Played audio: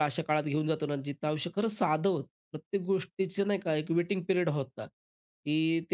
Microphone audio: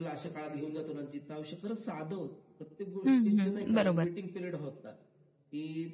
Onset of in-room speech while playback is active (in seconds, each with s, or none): 3.1 s